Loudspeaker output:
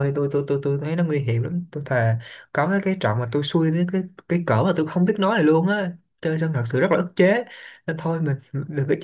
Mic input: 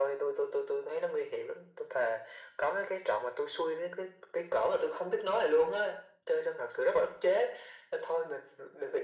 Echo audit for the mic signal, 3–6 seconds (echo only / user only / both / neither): echo only